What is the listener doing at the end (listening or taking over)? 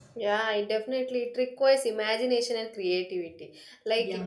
listening